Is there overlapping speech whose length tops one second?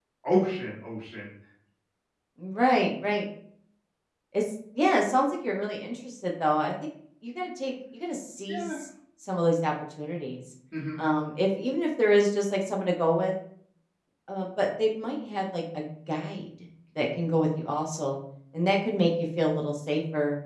No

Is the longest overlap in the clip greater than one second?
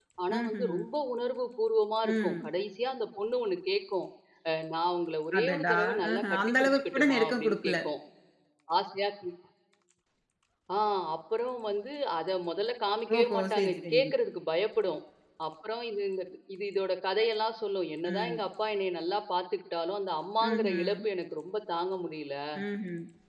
Yes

